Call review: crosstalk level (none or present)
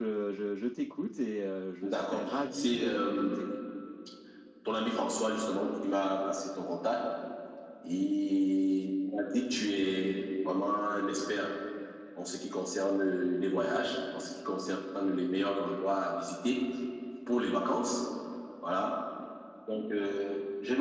present